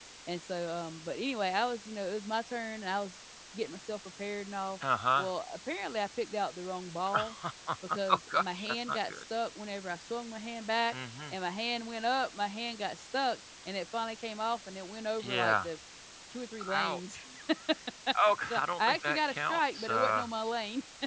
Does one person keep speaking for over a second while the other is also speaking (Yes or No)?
Yes